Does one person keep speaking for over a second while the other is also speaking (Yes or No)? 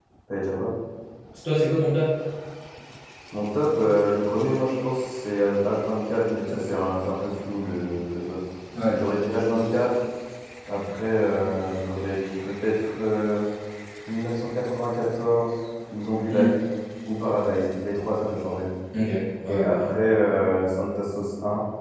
No